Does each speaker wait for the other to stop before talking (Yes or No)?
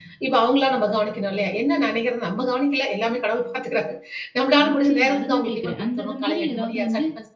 No